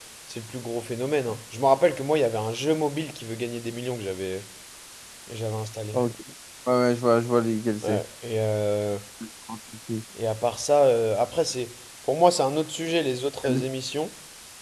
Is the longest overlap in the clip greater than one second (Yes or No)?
No